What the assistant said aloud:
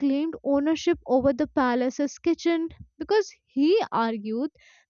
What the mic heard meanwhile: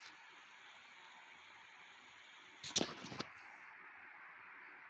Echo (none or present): none